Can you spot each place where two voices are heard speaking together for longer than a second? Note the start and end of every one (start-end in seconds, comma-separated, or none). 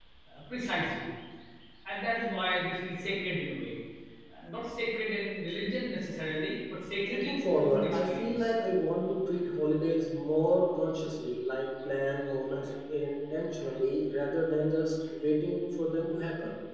7.1-8.5